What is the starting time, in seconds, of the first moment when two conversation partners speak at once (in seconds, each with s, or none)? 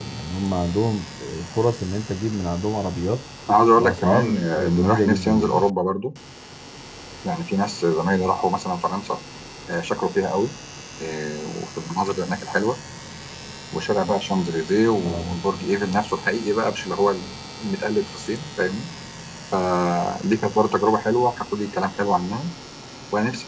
3.8 s